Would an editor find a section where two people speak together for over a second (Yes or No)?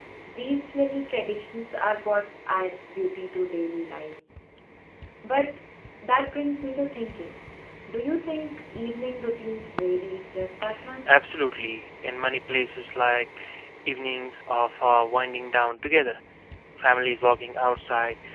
No